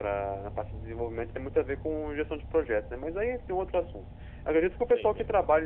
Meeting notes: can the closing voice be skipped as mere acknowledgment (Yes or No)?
Yes